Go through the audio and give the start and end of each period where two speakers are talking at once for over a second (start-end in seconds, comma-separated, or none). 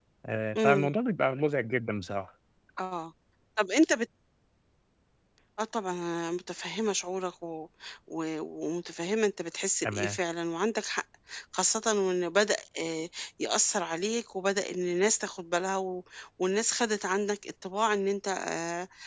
none